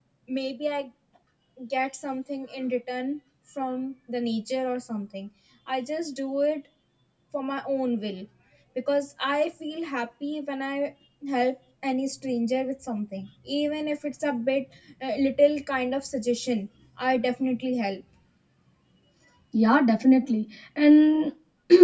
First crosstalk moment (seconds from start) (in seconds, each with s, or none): none